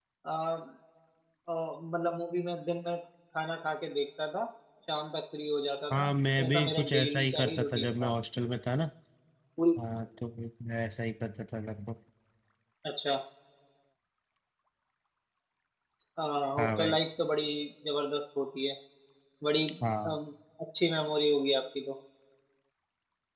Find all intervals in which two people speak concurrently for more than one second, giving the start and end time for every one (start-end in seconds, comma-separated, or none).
6.4-8.1